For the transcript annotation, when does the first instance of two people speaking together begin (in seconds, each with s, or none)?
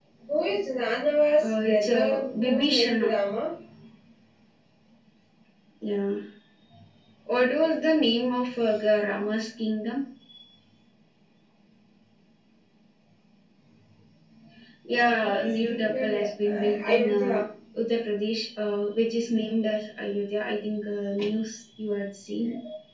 1.4 s